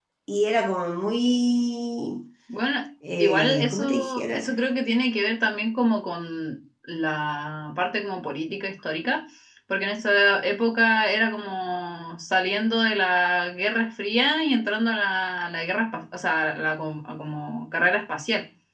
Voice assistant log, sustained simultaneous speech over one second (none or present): present